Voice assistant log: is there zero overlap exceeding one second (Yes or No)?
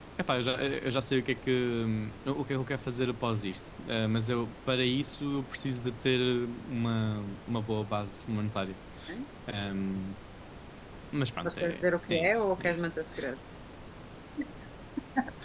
No